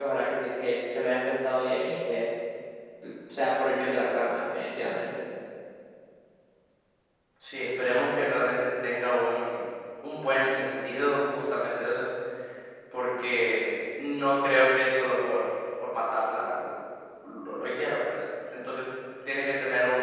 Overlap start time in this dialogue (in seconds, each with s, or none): none